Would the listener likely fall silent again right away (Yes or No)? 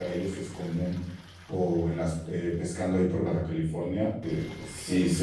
Yes